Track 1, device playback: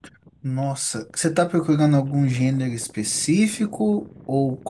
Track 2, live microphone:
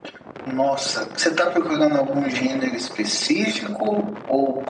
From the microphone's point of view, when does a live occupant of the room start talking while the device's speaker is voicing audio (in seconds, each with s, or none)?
none